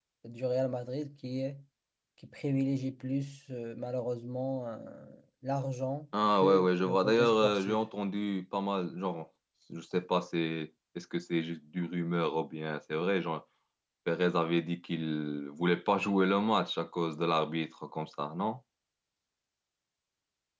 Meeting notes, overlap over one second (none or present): present